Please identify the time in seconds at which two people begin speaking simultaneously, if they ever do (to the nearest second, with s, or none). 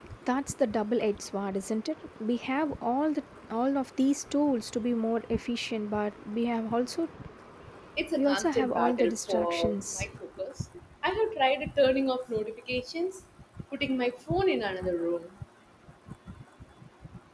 8 s